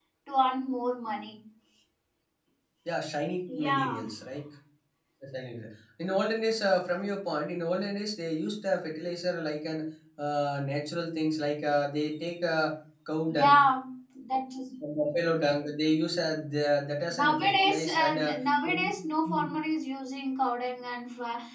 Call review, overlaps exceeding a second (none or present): present